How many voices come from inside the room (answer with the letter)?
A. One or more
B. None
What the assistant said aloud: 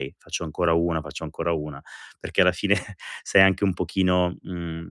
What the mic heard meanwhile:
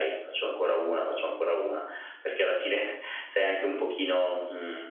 B